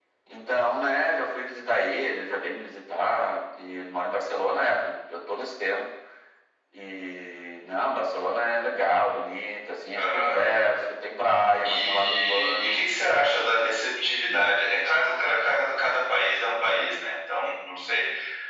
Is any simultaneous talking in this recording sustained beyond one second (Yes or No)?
Yes